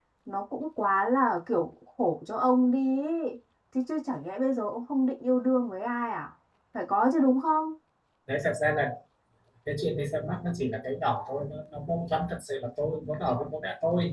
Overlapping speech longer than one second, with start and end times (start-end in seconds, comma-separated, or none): none